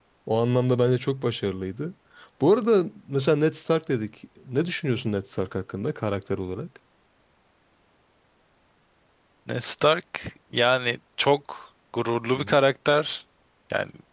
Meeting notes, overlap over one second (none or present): none